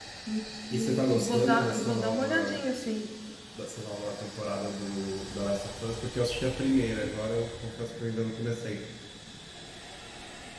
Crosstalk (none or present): present